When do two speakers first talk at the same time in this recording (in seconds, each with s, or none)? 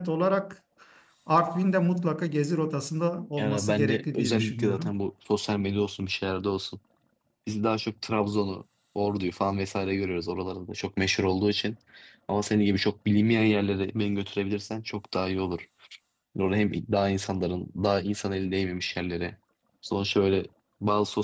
3.4 s